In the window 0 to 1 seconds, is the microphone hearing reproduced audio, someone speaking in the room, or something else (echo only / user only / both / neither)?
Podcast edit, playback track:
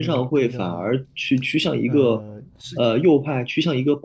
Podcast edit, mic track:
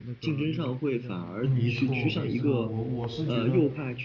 echo only